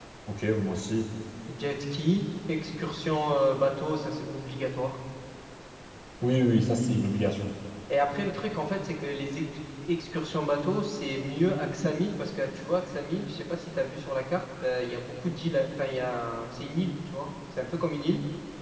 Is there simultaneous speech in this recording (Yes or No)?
No